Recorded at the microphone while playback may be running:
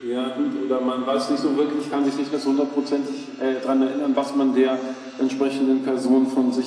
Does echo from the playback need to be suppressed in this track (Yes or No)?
Yes